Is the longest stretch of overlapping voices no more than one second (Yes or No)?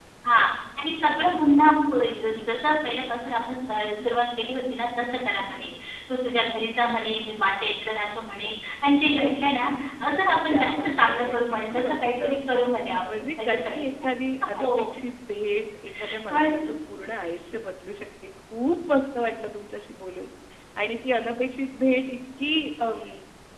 No